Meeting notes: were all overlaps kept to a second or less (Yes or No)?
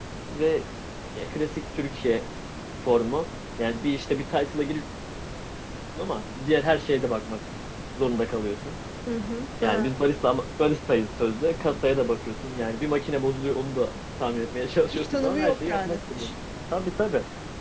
No